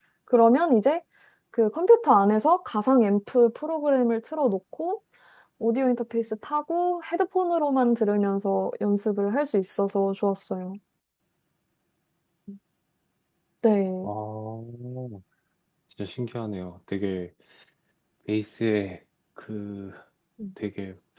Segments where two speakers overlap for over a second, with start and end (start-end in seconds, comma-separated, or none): none